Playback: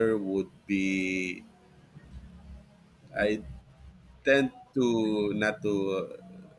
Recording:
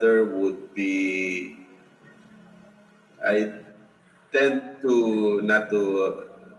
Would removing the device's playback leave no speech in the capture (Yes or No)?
Yes